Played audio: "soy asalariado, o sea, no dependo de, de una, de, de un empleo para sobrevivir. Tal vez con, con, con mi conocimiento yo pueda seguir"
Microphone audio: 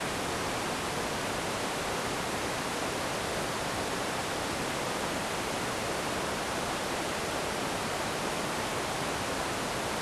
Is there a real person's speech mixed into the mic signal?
No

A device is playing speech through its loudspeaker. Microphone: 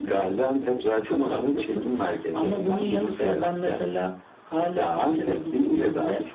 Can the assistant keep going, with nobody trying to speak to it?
Yes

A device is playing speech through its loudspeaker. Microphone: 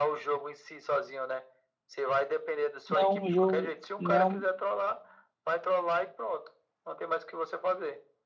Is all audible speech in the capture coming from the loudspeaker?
No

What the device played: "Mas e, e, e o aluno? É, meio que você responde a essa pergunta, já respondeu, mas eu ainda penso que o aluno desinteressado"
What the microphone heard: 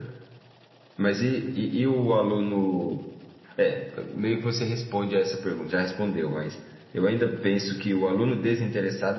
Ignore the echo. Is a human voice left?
No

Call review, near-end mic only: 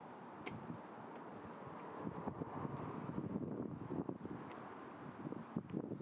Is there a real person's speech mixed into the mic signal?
No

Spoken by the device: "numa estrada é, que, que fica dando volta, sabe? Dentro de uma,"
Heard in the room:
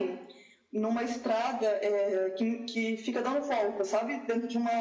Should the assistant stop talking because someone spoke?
No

